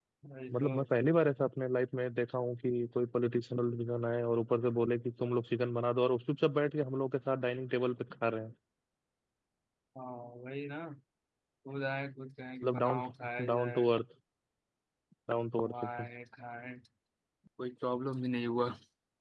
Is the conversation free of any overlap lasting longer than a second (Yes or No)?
Yes